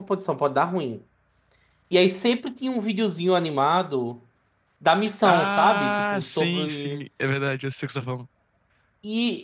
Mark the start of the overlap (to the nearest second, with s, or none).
5 s